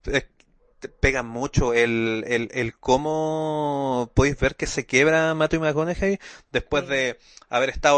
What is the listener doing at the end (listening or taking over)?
listening